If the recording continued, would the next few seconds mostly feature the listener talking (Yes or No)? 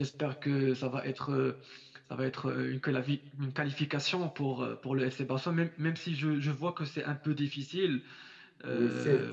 Yes